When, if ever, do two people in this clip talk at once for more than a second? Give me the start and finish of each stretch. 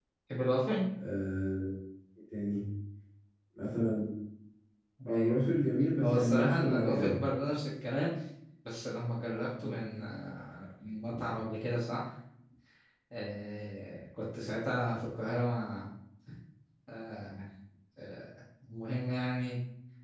6.0-7.2

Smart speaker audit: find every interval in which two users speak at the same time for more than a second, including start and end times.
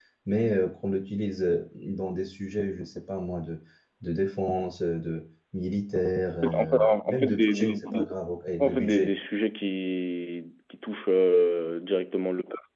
6.5-8.1

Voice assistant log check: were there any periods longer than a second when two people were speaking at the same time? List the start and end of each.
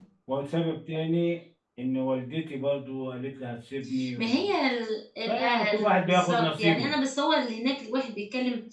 5.3-6.9

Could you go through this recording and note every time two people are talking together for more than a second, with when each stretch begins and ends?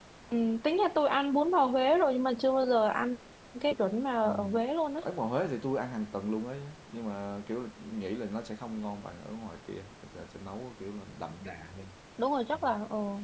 none

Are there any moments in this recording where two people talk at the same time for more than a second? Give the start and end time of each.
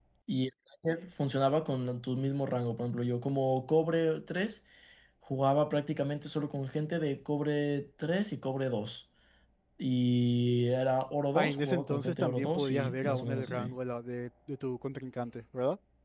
11.3-13.7

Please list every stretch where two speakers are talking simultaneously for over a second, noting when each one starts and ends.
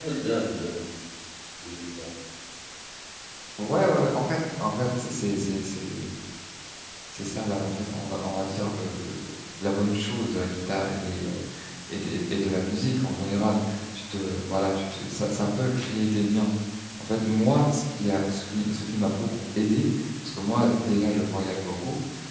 none

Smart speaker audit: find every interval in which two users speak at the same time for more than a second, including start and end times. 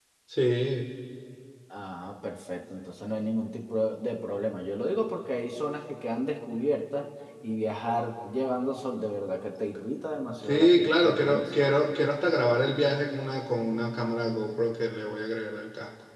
10.4-11.7

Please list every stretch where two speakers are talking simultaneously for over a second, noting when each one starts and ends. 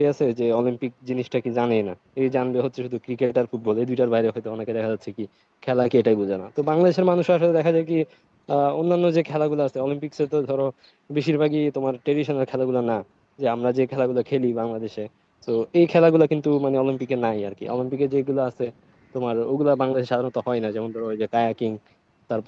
none

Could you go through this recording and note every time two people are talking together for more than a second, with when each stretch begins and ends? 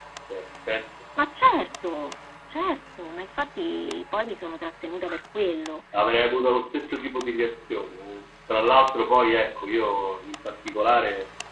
none

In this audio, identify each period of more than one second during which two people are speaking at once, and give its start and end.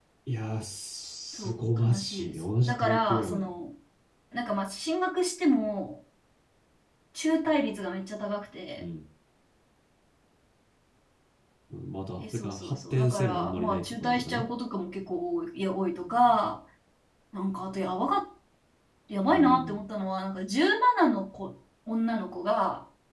1.4-3.5, 12.3-14.4

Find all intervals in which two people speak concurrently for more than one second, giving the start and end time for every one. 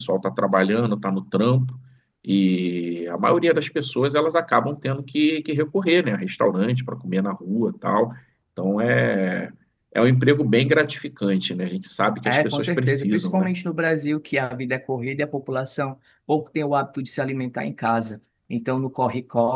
12.2-13.5

